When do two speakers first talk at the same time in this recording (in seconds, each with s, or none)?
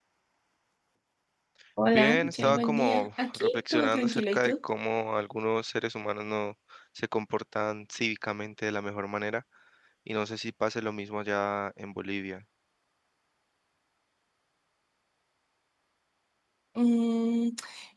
1.9 s